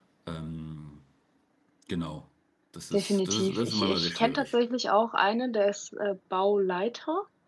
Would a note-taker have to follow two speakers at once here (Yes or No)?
Yes